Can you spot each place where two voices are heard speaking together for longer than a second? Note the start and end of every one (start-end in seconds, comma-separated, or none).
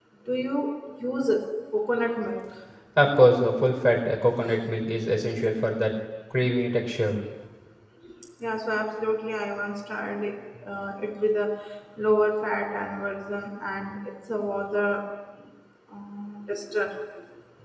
none